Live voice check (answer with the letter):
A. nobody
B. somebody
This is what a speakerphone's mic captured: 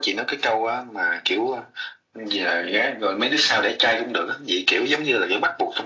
A